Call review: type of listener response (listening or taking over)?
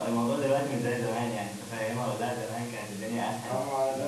taking over